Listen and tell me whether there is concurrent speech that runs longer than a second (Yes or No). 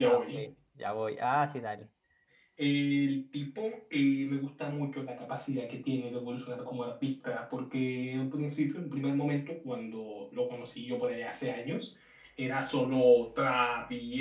No